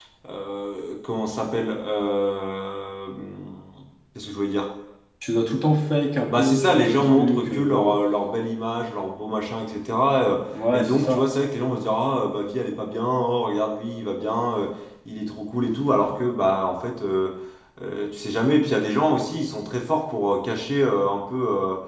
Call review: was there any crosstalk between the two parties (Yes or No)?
Yes